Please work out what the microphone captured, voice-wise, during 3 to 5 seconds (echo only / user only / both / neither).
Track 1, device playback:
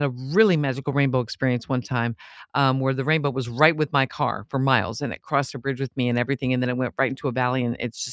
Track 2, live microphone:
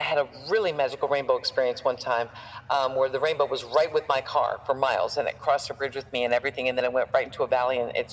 echo only